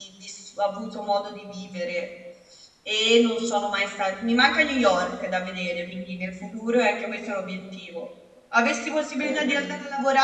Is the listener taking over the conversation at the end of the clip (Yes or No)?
No